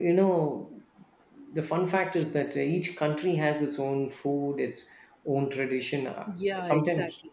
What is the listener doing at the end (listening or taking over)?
taking over